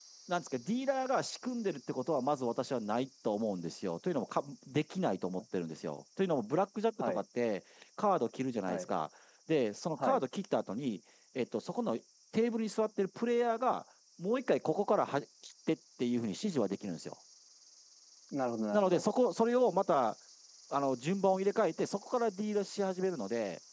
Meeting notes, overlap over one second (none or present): none